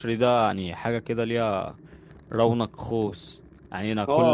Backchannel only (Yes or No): No